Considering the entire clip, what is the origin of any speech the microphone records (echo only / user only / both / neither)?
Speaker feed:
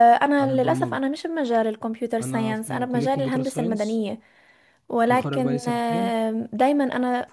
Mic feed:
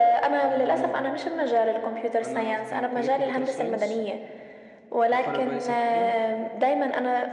echo only